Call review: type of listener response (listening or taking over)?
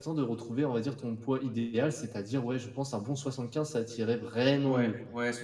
taking over